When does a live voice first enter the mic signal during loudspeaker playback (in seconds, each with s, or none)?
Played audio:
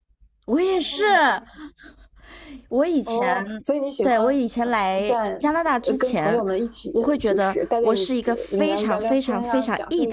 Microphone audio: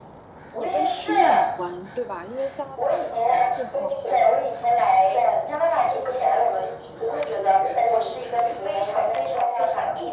0.5 s